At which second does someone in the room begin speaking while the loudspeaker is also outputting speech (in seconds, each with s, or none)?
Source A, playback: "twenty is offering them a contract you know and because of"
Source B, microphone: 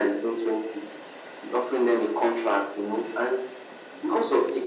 none